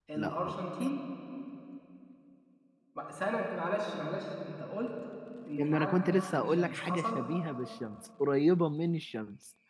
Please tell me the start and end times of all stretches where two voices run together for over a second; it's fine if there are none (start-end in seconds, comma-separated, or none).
5.6-7.2